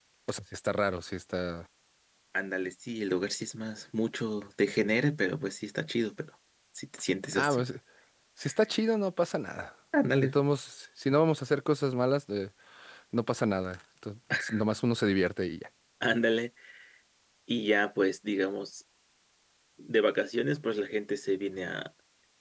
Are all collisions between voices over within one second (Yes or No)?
Yes